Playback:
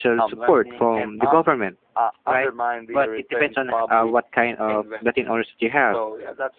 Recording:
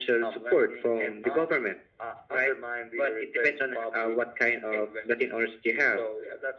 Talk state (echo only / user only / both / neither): echo only